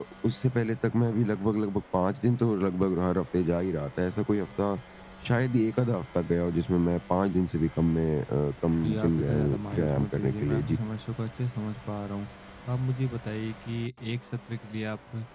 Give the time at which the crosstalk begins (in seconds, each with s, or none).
8.8 s